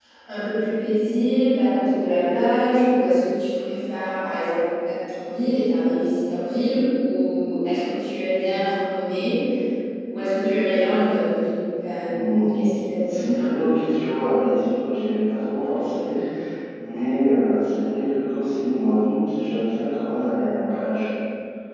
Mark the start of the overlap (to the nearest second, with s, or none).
none